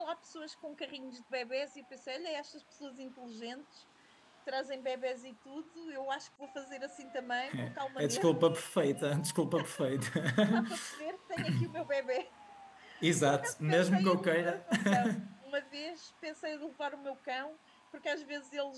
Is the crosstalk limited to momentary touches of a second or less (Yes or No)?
No